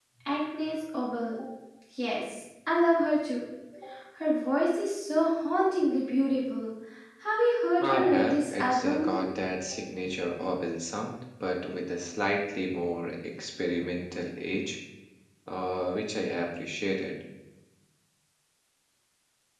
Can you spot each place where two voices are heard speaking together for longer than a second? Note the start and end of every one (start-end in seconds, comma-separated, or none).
7.8-9.1